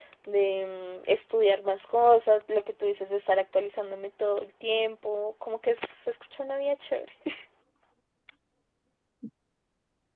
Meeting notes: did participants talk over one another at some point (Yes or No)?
No